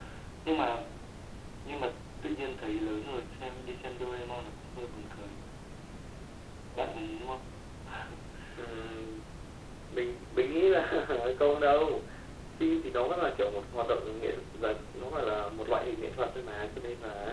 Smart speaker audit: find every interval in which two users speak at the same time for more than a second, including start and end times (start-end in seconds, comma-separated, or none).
none